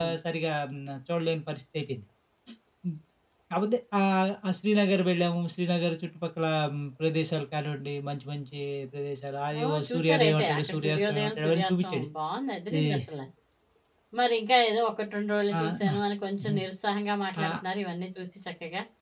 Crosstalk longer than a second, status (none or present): present